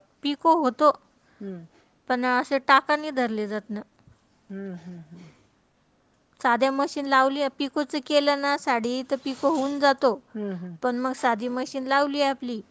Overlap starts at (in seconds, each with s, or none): none